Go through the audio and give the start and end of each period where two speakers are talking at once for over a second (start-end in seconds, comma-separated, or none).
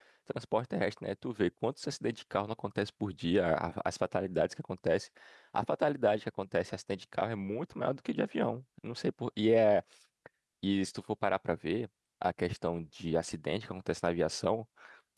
none